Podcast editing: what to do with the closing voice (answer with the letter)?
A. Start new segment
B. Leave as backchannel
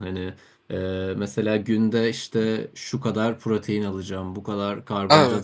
B